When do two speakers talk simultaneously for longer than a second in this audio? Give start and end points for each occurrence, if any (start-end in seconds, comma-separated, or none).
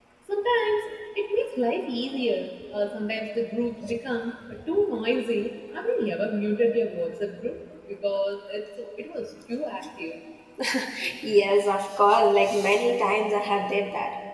none